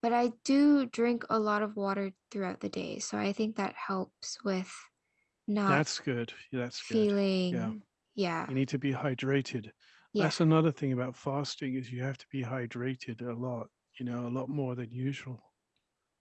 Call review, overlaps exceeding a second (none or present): none